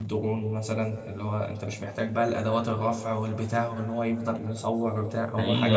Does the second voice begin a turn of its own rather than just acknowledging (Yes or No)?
Yes